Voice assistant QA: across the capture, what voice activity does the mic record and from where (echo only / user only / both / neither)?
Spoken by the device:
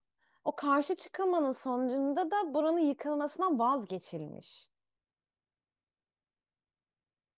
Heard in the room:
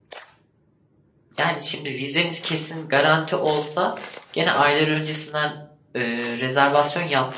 user only